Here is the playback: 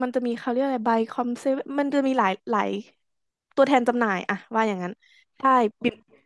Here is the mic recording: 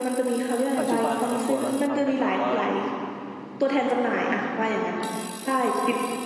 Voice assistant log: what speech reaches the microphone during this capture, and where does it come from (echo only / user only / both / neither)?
both